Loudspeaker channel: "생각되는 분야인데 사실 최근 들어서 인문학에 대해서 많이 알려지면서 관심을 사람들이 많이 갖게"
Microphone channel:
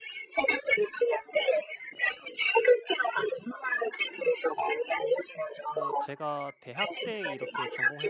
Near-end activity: present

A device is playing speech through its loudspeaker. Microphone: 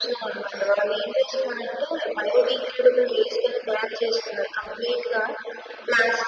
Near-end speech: none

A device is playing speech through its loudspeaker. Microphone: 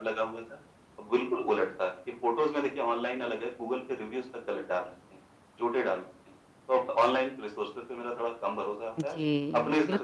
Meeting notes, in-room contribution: present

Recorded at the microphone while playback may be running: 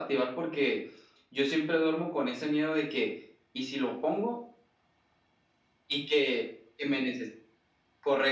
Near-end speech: none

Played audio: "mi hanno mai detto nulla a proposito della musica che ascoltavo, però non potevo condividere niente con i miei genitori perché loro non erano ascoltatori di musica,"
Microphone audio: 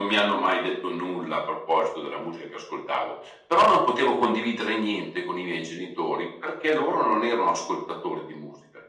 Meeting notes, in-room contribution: none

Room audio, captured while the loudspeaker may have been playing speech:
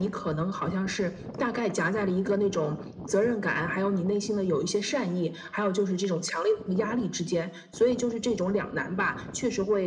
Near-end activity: none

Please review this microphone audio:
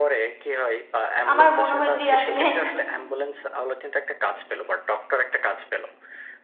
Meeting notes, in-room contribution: present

